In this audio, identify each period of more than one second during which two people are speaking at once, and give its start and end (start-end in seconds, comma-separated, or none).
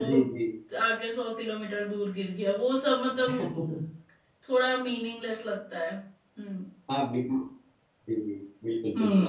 none